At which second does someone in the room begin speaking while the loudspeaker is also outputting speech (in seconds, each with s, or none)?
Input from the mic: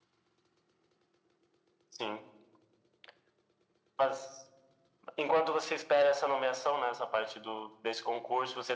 none